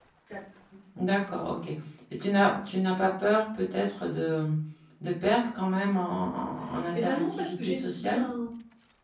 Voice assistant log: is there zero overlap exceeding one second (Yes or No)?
No